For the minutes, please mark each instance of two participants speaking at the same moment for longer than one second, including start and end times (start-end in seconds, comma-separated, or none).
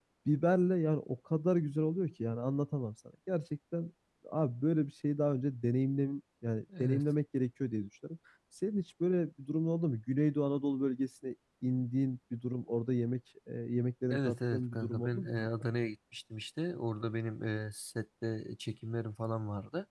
14.1-15.5